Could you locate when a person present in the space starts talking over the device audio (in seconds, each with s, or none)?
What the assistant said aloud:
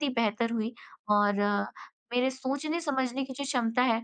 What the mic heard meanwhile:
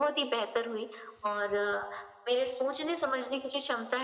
none